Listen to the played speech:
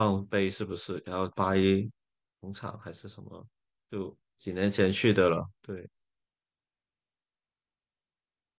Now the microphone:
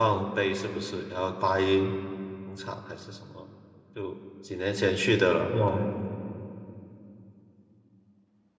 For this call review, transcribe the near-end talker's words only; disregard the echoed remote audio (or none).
哦，